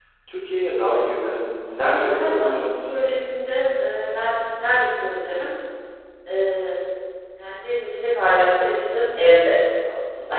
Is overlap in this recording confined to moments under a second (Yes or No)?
No